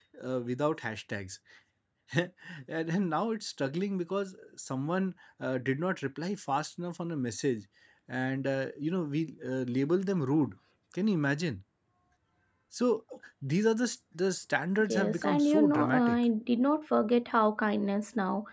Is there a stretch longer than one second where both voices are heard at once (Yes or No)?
Yes